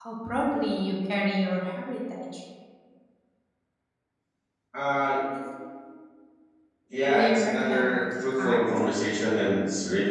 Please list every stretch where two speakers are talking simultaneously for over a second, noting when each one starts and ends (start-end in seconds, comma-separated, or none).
7.0-8.7